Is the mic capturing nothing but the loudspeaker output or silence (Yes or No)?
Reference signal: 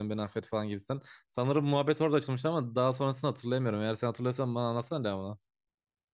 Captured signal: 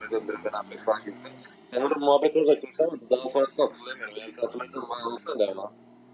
Yes